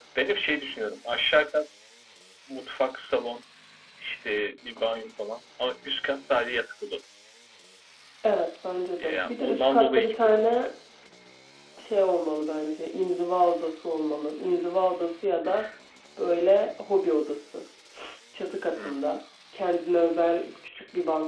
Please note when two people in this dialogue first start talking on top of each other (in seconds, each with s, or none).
9.0 s